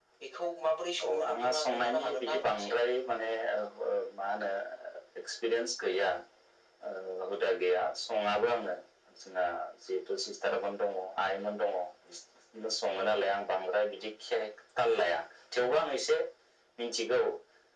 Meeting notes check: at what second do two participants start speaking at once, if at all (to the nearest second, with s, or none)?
1 s